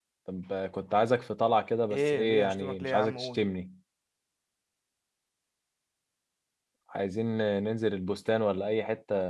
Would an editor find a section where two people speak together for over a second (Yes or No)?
Yes